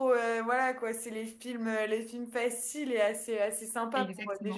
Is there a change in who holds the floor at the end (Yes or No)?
Yes